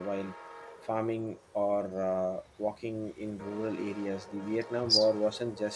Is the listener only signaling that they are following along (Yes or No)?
Yes